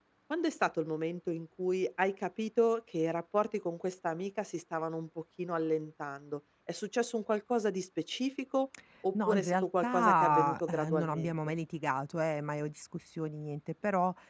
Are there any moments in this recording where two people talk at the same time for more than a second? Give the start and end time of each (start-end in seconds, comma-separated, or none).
9.1-11.3